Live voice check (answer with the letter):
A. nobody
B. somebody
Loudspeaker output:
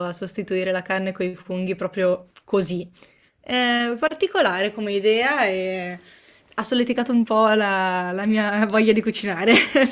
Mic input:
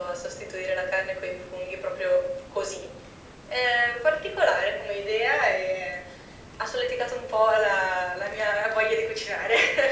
A